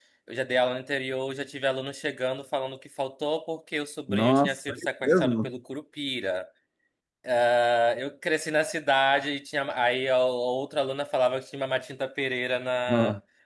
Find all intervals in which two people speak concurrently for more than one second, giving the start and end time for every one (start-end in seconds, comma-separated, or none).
4.1-5.5